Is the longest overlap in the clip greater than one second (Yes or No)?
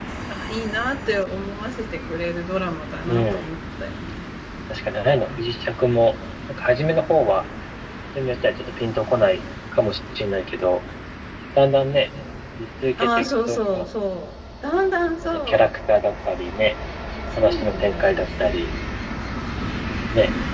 Yes